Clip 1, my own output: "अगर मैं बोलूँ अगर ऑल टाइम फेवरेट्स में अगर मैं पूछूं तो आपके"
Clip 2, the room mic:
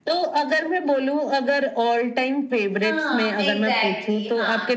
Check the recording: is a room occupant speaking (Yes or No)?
Yes